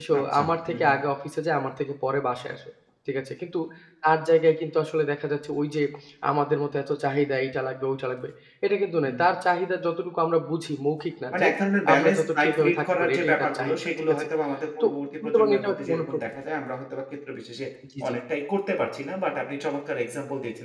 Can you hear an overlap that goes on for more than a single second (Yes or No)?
Yes